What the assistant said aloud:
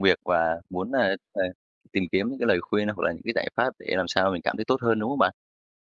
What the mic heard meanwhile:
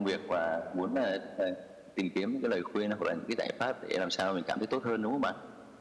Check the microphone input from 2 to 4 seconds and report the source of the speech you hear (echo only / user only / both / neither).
echo only